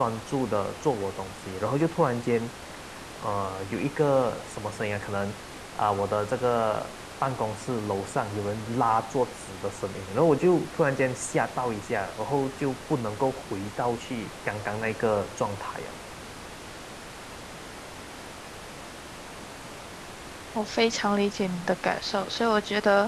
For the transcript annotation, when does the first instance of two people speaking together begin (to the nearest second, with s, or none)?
none